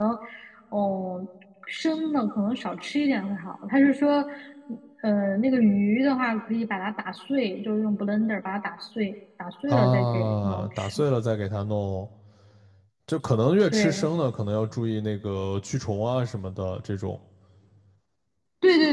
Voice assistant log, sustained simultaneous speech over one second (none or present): present